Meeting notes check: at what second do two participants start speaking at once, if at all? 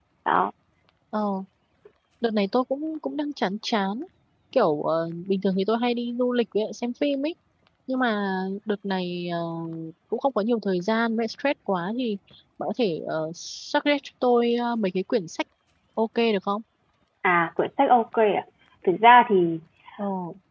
none

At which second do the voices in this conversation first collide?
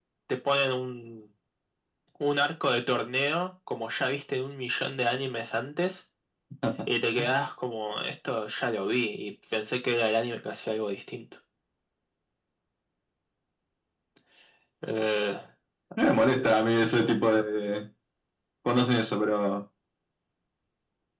none

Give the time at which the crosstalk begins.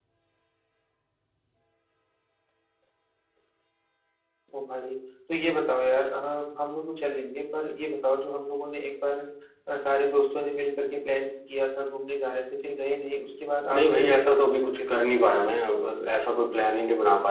13.6 s

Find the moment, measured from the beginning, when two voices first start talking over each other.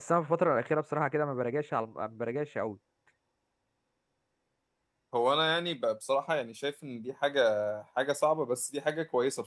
none

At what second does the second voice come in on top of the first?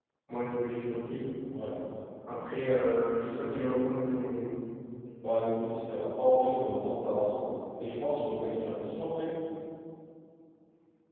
none

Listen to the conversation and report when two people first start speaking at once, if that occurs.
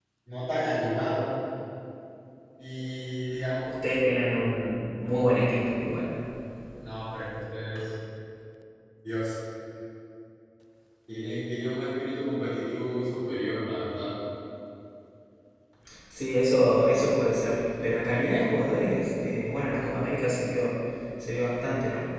none

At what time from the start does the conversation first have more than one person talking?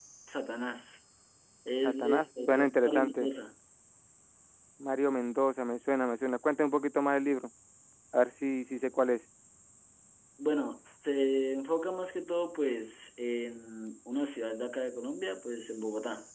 1.8 s

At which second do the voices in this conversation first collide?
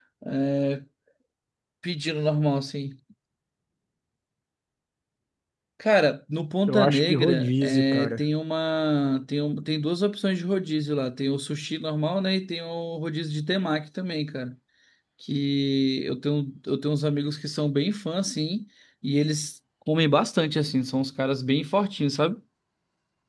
6.7 s

